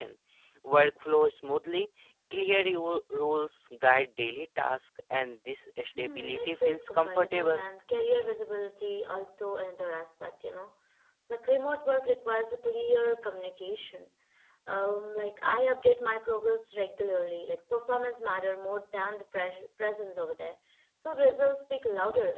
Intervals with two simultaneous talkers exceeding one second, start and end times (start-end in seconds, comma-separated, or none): 6.0-7.6